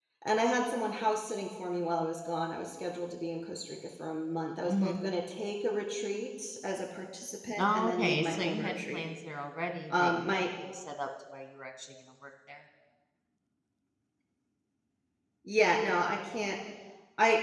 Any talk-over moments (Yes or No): Yes